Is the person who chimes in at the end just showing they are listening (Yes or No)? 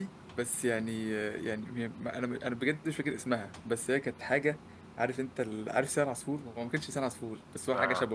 Yes